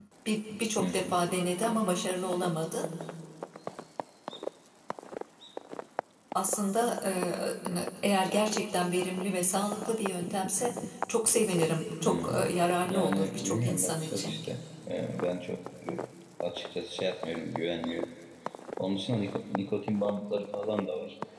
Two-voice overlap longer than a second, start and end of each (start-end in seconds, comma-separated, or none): 12.9-14.4